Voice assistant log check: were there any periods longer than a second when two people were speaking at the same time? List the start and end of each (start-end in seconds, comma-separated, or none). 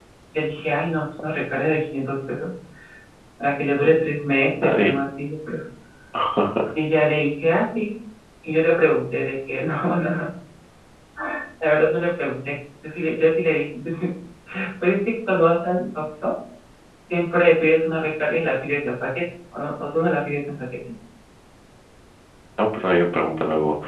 none